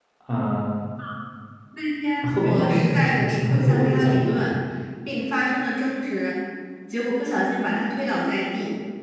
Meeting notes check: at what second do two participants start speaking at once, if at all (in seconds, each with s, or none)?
2.2 s